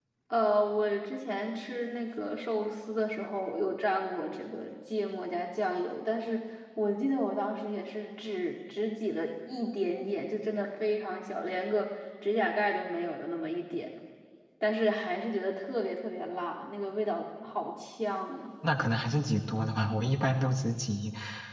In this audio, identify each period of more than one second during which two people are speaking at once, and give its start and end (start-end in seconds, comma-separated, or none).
none